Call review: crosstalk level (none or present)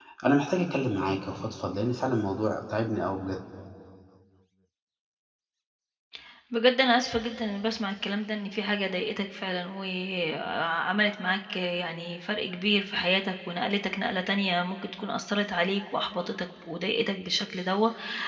none